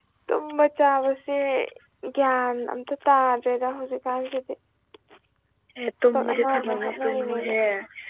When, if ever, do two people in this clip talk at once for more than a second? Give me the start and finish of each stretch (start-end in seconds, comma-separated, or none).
6.1-7.5